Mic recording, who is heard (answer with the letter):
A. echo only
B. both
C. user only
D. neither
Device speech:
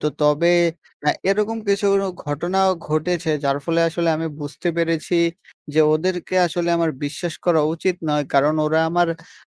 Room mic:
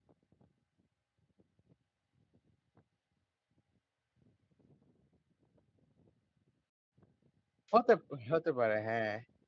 C